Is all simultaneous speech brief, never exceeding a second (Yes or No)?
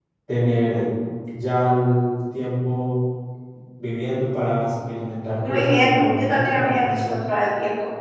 No